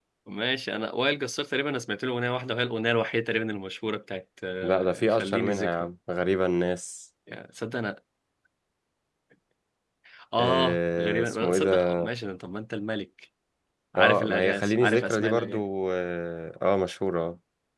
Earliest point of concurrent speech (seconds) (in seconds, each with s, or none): 4.6 s